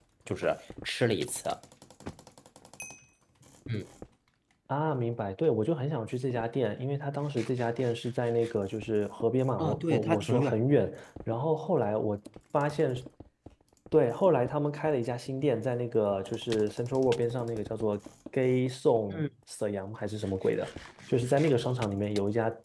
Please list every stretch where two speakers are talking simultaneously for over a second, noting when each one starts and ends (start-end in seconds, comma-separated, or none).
9.6-10.8